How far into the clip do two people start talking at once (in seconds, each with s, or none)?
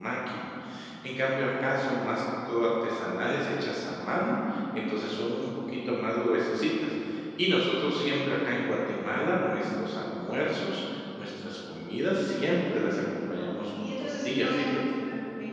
12.6 s